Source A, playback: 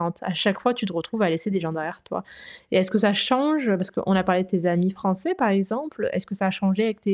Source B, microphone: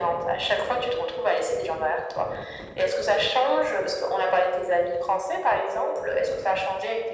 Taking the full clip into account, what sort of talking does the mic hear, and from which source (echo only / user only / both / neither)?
echo only